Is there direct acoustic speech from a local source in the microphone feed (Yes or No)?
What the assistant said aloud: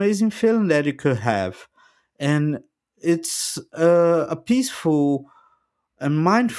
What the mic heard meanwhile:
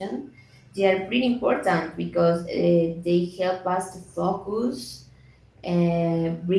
Yes